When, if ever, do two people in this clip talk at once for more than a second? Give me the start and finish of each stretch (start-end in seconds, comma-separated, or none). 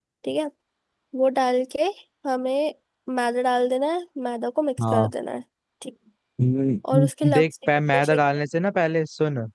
6.9-8.2